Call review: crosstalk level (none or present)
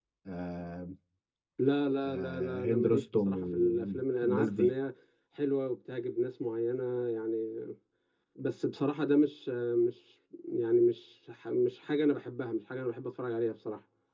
present